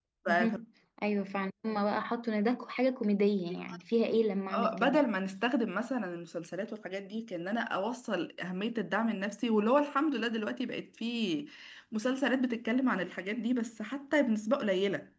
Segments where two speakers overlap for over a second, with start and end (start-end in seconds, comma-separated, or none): none